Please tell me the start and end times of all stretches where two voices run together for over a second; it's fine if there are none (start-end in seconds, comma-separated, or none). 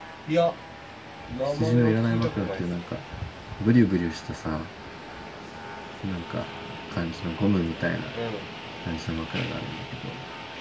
1.5-2.9